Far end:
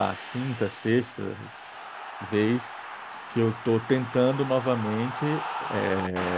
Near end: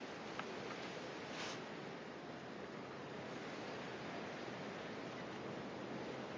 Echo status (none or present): none